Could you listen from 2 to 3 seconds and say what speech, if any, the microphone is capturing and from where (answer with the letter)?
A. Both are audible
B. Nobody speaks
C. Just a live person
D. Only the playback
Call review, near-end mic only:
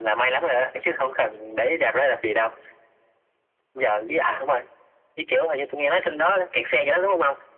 D